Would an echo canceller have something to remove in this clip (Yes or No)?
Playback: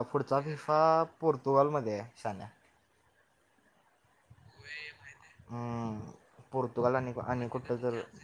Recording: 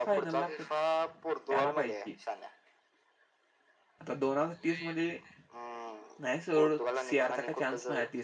Yes